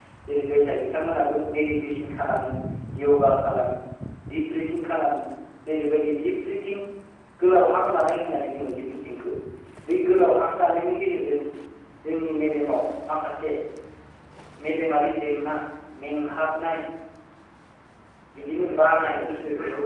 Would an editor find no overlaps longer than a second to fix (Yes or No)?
No